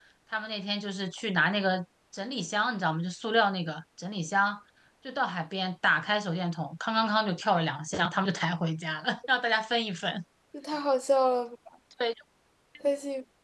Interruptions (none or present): none